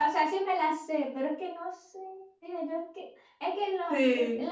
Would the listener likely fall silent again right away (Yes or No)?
Yes